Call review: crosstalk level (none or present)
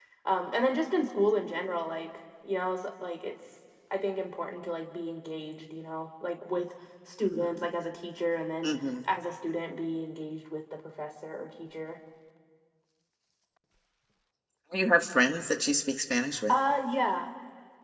none